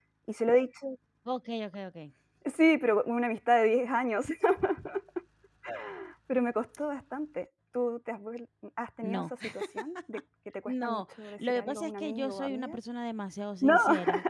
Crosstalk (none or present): present